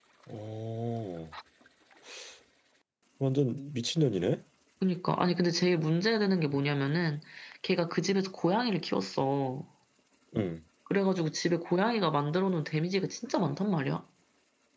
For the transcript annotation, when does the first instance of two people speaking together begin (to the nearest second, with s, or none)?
none